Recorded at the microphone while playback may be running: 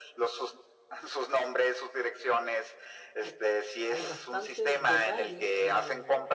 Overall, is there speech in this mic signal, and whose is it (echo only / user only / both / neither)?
both